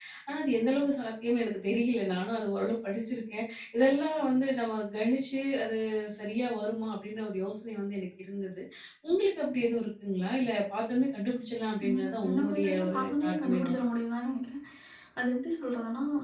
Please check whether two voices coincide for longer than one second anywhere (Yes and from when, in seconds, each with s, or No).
Yes, from 11.8 s